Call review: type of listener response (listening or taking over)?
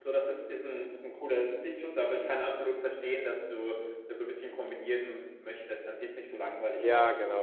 taking over